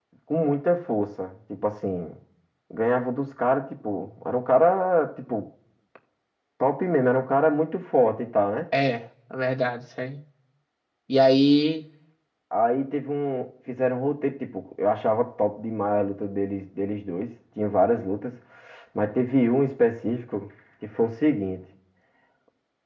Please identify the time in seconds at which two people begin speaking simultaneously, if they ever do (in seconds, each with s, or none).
none